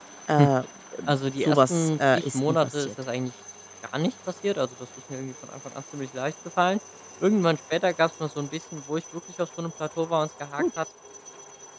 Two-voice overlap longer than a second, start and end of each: 1.4-2.9

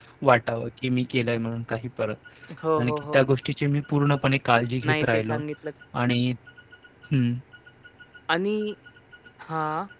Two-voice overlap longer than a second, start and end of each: none

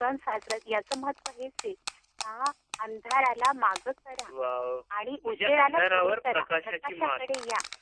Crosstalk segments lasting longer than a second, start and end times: 5.2-7.2

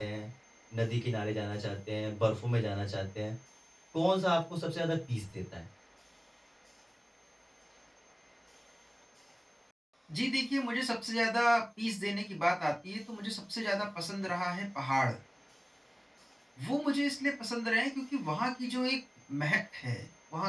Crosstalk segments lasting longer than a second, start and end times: none

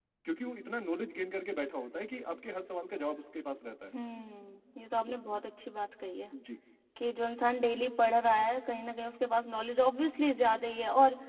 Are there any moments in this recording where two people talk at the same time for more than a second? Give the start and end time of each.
none

